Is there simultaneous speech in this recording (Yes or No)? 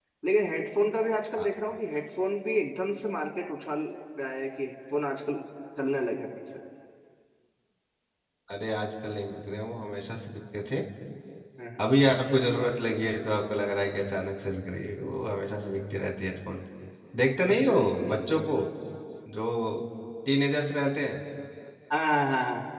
No